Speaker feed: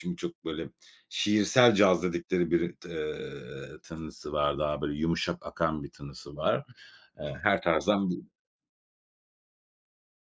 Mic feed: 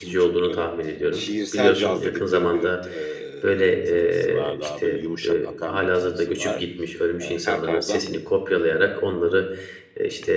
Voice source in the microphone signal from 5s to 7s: both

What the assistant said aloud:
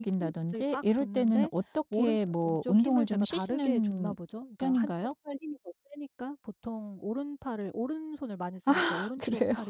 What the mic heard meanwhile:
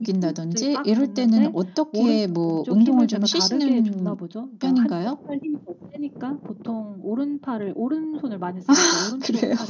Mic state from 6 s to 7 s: echo only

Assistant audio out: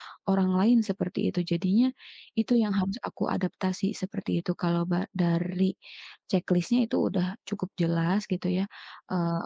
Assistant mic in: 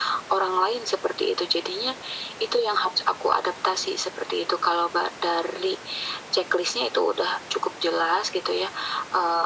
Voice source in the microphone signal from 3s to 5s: echo only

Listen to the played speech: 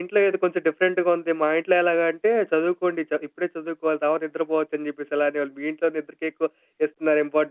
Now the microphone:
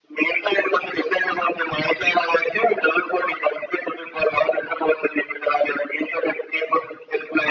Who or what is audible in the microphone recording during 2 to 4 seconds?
echo only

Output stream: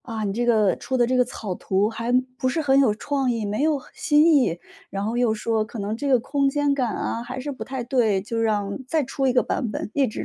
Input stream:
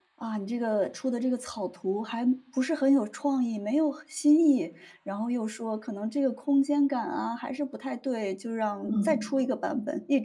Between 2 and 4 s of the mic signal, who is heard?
echo only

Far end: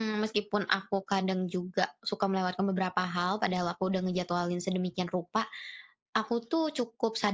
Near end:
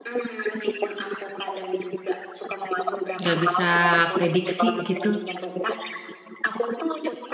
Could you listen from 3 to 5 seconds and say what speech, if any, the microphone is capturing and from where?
both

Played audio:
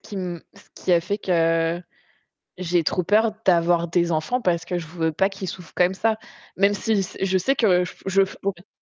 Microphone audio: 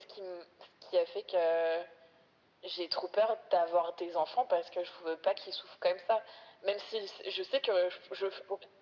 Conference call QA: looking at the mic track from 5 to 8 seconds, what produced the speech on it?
echo only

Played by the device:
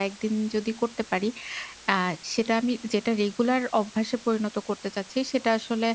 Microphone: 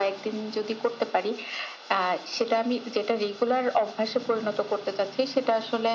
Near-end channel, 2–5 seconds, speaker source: echo only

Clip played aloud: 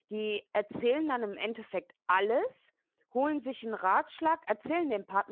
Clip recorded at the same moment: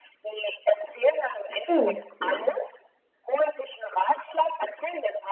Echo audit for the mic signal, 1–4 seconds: both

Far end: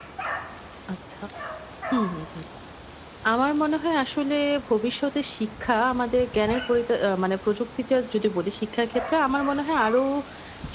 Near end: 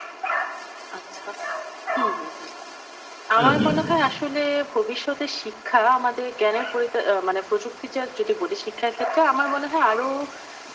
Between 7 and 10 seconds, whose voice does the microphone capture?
echo only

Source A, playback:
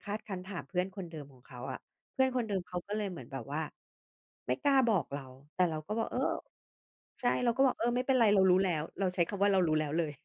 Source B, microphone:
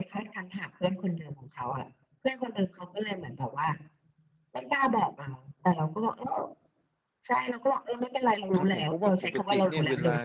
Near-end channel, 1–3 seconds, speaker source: echo only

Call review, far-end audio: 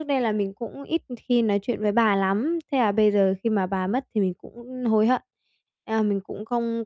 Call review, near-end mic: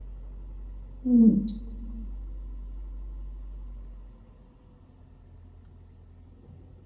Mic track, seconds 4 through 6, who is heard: neither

